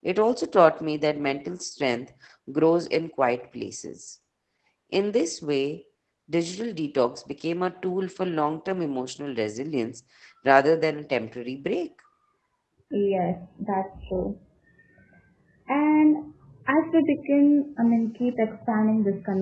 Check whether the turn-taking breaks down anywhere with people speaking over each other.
No

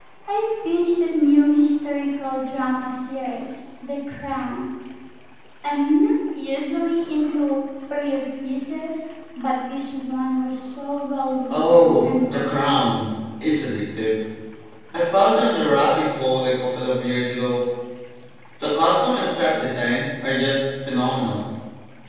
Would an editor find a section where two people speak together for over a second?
Yes, from 11.5 s

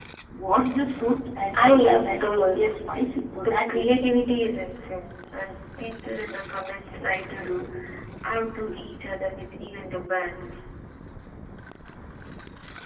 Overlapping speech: Yes, from 1.5 s

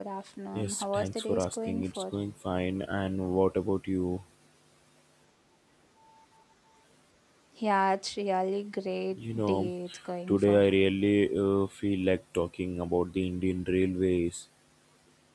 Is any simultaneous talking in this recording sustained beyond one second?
Yes, from 0.5 s

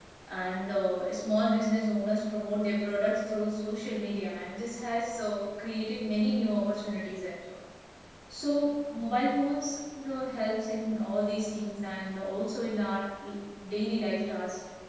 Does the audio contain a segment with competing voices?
No

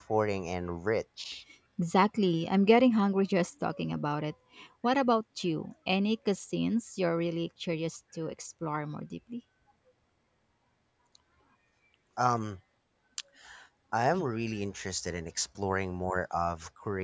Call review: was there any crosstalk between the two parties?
No

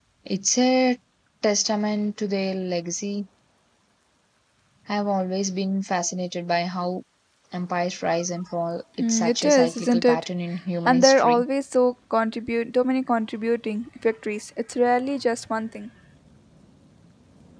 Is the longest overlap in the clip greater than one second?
Yes, from 9.0 s

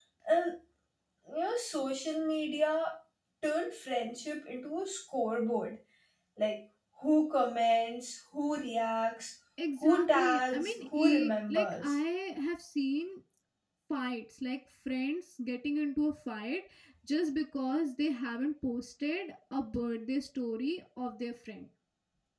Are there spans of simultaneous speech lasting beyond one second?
Yes, from 9.6 s

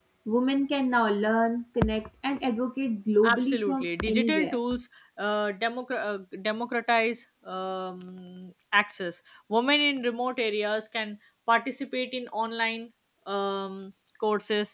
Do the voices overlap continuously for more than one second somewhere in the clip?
Yes, from 3.2 s

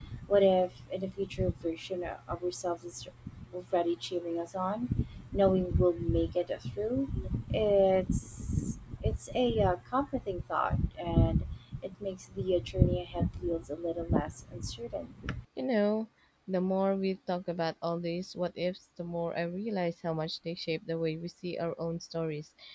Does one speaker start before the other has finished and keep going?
No

